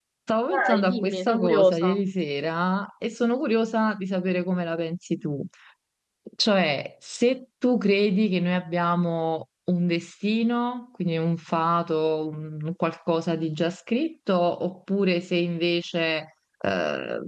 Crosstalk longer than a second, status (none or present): present